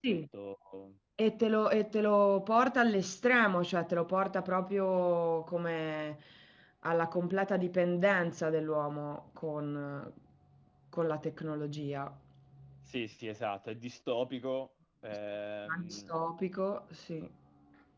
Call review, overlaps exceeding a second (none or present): none